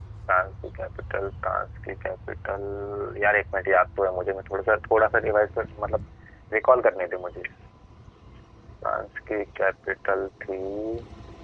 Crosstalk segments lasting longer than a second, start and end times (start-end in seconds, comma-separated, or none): none